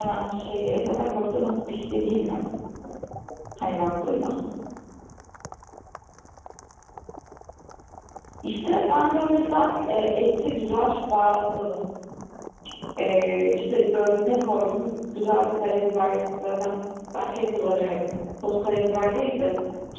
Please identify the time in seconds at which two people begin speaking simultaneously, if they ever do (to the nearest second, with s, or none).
9 s